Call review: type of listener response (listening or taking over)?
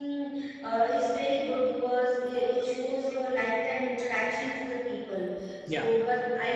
listening